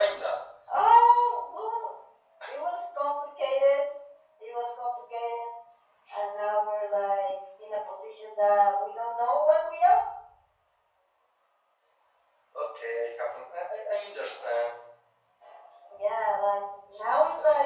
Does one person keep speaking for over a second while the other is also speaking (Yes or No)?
No